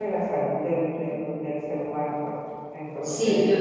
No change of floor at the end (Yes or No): No